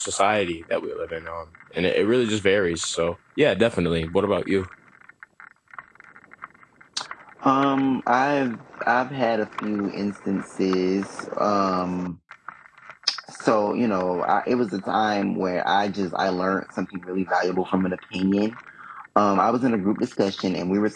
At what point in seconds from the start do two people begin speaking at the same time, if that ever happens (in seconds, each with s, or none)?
none